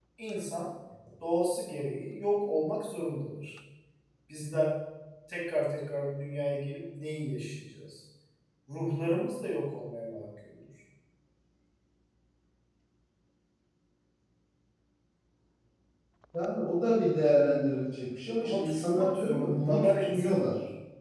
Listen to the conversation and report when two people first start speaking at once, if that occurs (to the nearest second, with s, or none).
18 s